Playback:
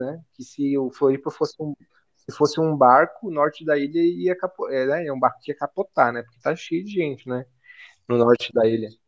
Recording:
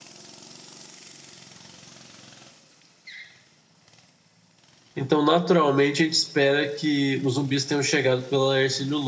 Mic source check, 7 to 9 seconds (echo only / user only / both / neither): user only